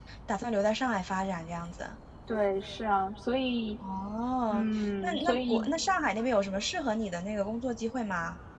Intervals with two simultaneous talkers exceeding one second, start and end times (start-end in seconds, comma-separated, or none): 4.5-5.7